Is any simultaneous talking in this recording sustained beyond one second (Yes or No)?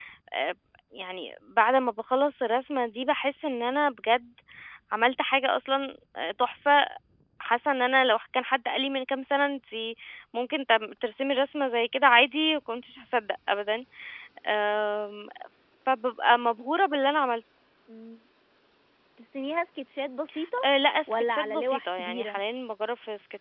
Yes